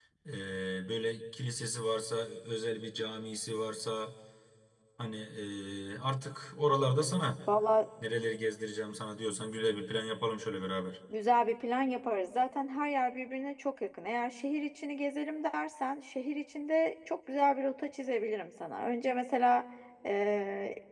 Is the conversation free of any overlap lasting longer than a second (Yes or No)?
Yes